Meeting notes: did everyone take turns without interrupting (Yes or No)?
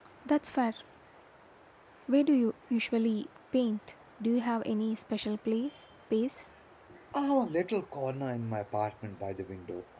Yes